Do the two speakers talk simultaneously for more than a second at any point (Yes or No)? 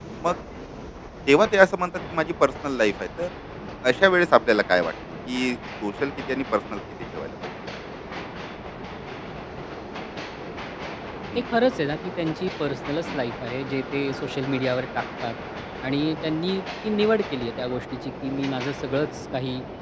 No